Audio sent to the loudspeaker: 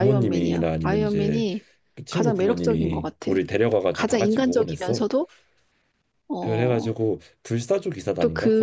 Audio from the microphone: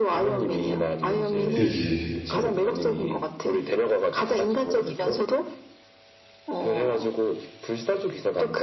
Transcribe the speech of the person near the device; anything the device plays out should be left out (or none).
그지.